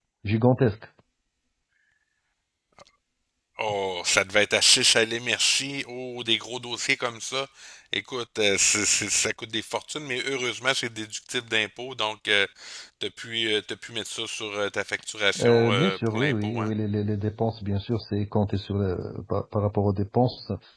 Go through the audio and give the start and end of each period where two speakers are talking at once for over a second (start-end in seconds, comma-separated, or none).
15.4-16.7